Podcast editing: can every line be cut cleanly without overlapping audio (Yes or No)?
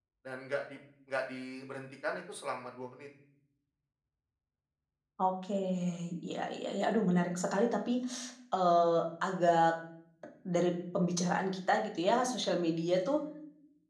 Yes